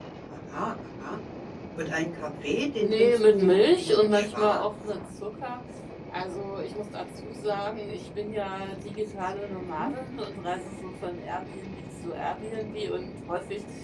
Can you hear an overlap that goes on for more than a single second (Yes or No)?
Yes